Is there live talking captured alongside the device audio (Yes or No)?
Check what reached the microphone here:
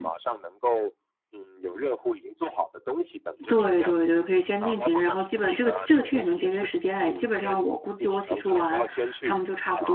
Yes